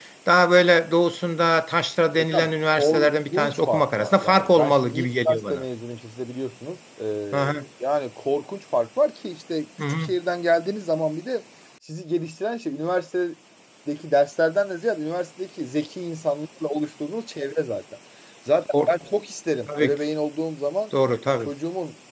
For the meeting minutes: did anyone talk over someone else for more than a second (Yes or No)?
Yes